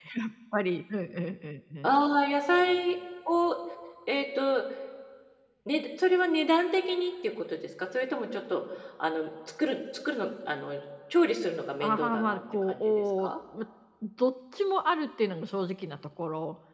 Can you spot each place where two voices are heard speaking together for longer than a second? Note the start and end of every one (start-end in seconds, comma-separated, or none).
11.8-13.3